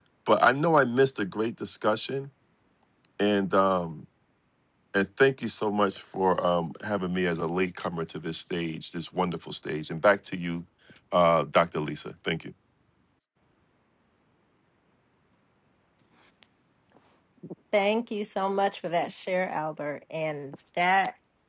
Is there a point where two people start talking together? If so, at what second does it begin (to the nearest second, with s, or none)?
none